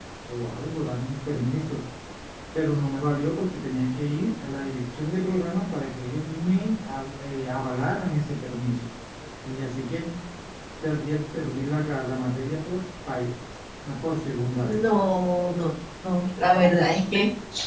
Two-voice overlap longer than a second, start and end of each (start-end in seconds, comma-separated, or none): none